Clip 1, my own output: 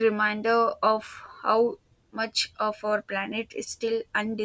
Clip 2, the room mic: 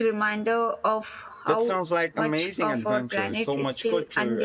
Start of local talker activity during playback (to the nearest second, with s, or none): 1 s